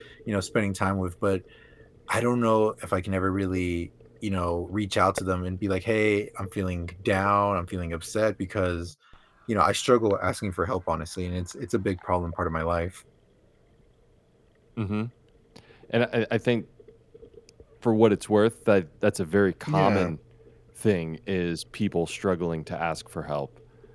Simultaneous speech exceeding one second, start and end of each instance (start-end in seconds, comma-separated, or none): none